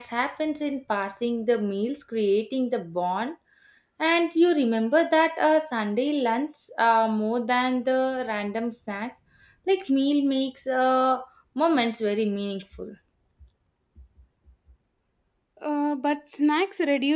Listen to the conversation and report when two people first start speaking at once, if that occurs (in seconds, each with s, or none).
none